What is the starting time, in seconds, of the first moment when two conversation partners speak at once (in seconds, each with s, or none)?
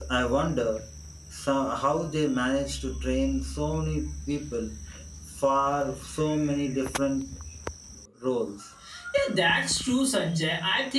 none